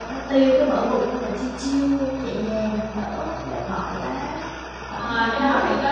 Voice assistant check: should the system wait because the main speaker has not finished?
No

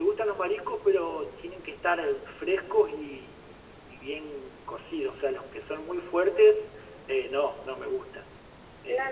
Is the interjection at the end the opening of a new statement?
Yes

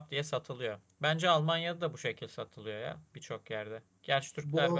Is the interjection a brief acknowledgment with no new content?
No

